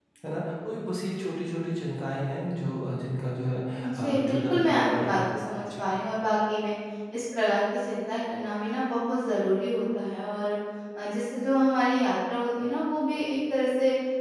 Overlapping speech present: Yes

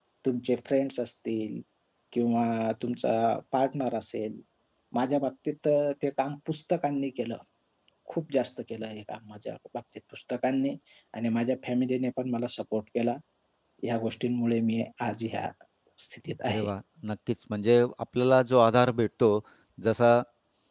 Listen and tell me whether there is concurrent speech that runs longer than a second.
No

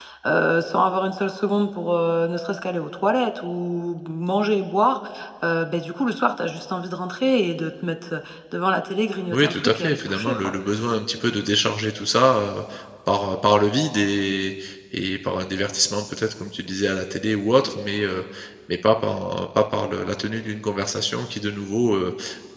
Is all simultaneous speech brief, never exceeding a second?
No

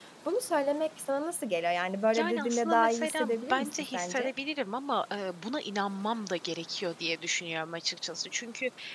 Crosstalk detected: Yes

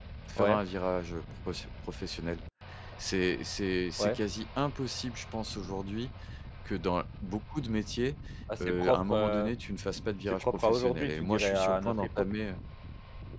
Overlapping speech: Yes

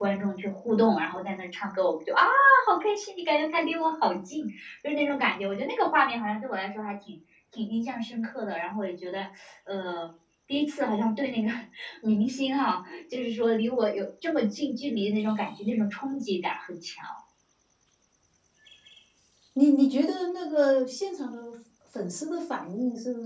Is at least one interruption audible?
No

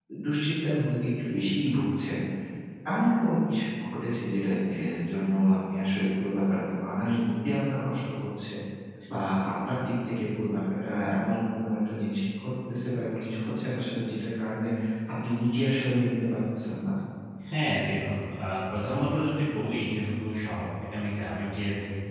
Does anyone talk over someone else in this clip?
No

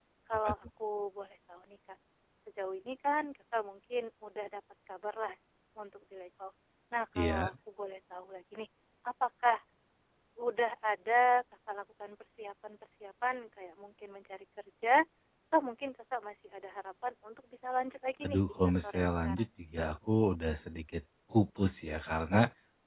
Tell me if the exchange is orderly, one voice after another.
No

